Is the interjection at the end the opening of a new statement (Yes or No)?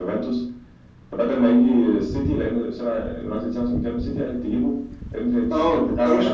Yes